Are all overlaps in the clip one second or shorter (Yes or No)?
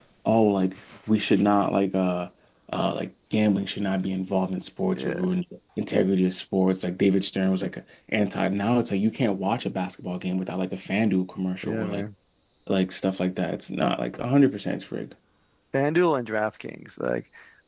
Yes